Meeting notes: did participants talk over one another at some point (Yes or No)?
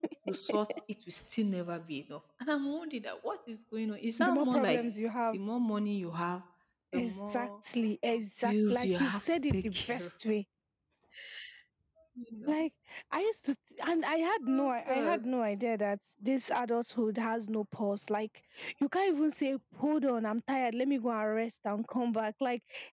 Yes